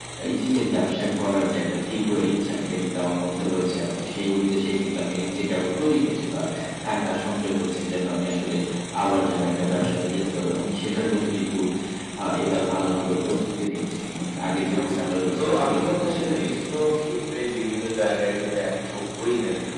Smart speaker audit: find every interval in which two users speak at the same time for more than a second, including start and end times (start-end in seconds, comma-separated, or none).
15.4-16.8